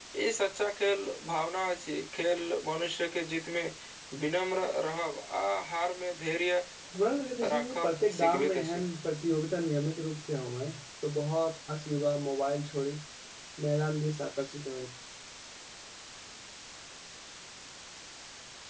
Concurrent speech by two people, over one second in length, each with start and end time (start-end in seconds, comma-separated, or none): 7.5-8.8